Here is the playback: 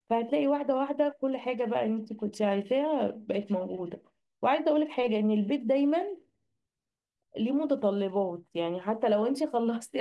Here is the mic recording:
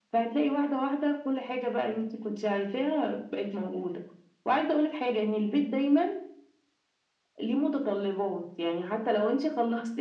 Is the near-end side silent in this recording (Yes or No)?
Yes